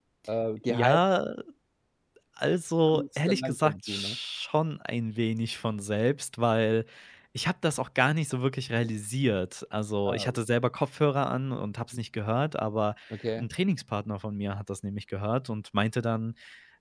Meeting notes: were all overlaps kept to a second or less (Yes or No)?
No